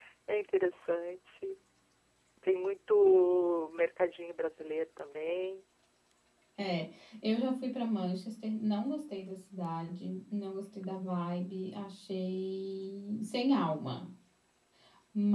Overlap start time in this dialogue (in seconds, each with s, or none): none